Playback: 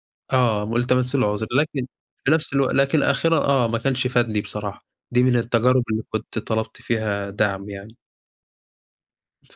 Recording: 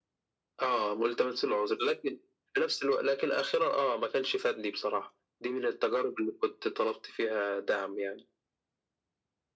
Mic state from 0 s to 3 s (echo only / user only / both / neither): echo only